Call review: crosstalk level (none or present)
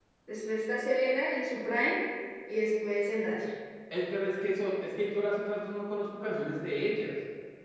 none